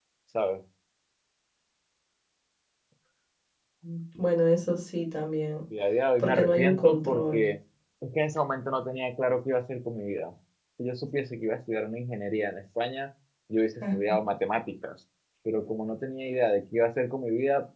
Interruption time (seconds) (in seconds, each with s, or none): 6.2 s